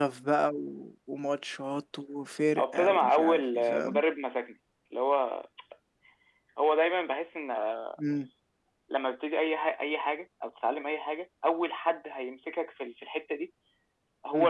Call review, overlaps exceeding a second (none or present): present